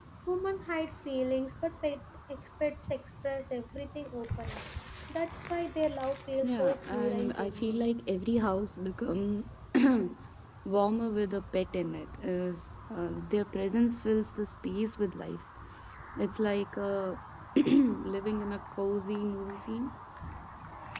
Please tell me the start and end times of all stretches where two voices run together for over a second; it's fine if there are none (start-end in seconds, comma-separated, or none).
6.4-7.8